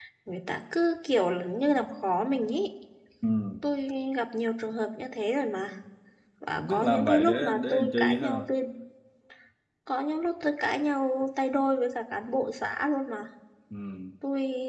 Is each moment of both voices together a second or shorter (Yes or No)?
No